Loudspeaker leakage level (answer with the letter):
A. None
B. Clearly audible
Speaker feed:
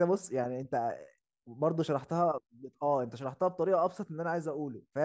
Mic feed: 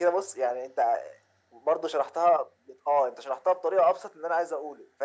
B